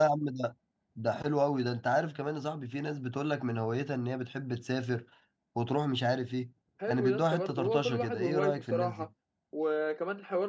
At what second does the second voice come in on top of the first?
7 s

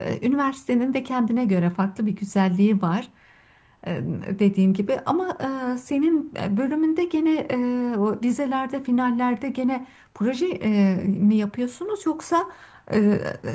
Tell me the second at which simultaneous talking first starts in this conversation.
none

